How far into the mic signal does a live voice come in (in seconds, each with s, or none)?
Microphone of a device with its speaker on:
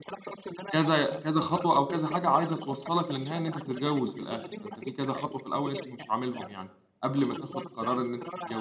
0.7 s